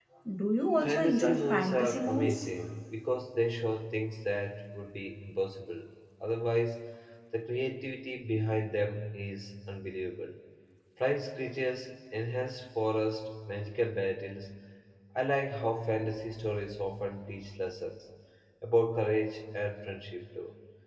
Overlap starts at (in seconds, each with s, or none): 0.8 s